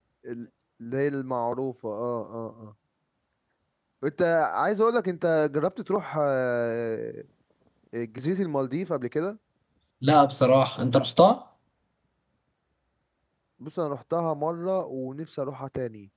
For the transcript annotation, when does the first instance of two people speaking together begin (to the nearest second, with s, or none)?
none